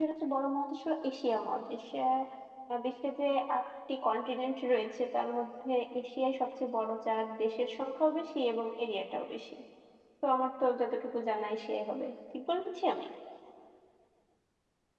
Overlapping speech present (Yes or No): No